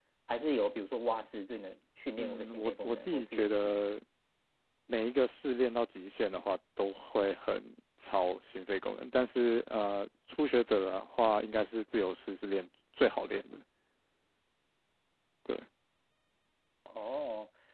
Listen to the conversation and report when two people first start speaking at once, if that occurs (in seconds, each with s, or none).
2.2 s